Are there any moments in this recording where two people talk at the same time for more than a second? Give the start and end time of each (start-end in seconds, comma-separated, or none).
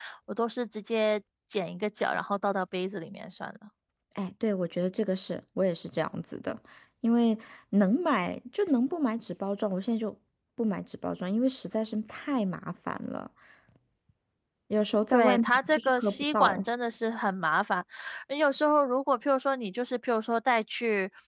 15.1-16.6